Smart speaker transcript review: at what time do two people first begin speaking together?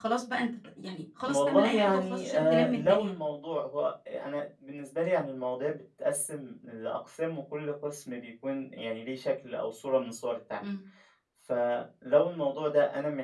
1.2 s

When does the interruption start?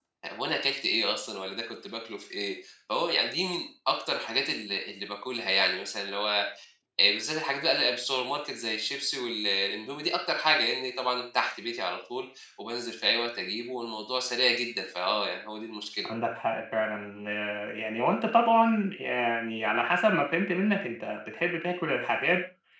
none

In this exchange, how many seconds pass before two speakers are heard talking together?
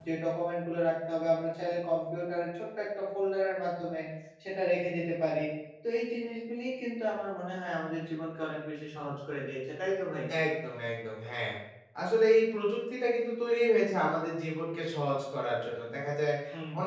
none

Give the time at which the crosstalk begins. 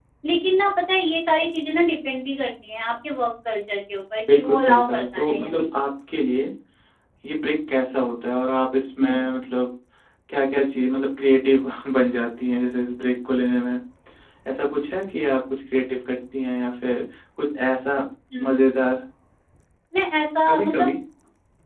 4.3 s

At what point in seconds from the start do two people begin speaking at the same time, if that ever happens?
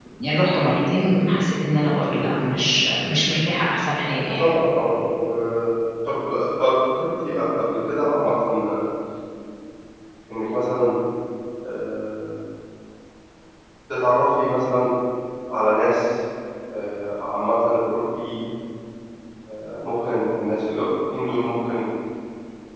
none

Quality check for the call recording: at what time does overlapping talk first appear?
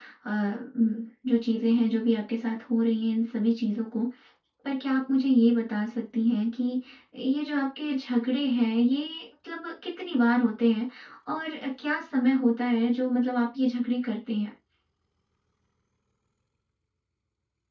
none

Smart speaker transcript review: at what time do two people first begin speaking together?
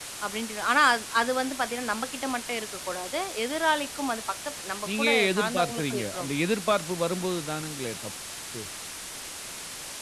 4.8 s

